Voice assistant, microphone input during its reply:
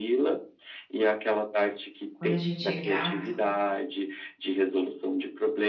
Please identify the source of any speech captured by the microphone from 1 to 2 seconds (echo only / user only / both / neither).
echo only